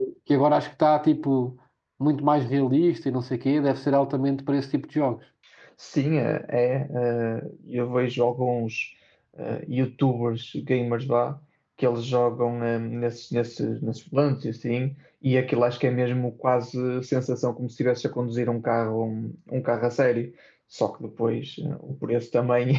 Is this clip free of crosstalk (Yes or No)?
Yes